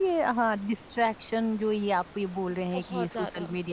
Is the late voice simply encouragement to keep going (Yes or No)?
Yes